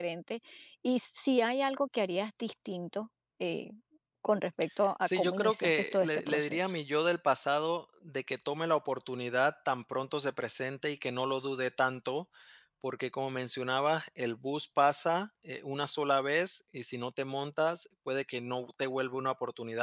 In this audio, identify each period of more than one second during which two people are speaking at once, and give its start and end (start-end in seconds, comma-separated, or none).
5.0-6.7